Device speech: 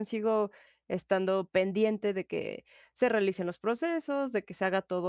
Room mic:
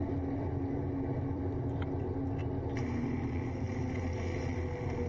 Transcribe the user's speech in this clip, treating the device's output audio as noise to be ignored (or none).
none